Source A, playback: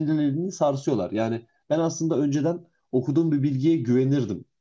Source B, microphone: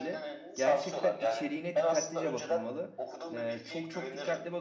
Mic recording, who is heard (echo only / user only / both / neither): both